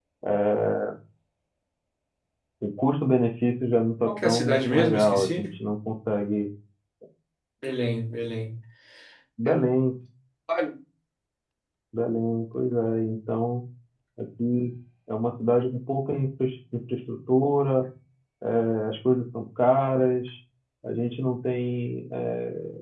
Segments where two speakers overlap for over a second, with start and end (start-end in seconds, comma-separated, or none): 4.1-5.4